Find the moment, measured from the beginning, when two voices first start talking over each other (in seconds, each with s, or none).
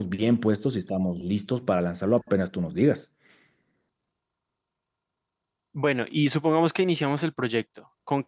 none